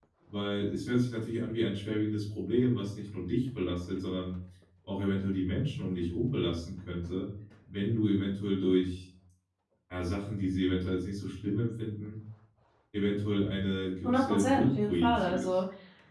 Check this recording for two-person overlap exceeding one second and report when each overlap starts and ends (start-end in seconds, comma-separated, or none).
14.0-15.5